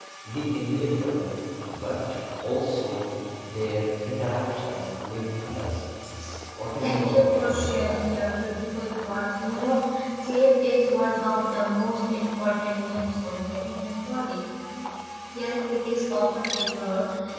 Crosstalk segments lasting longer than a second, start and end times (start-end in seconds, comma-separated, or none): 6.8-8.1